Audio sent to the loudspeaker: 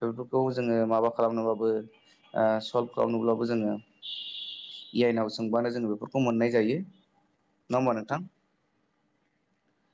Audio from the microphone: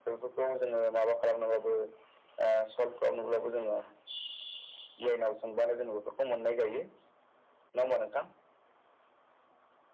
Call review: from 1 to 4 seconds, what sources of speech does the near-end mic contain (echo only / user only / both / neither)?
echo only